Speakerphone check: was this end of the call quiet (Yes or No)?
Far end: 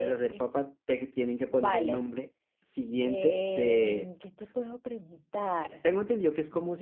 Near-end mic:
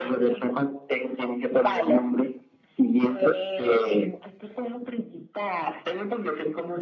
Yes